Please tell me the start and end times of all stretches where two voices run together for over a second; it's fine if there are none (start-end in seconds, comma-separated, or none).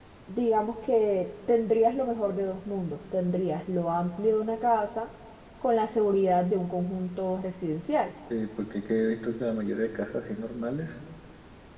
none